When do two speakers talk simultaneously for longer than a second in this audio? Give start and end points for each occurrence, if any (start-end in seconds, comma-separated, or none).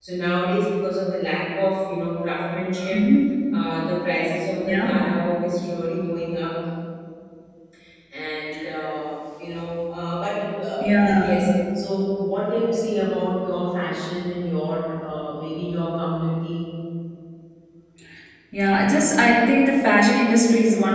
none